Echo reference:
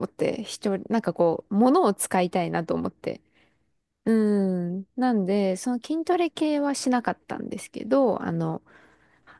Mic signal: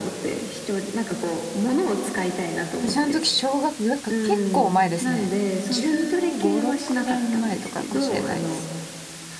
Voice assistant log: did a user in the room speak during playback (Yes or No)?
Yes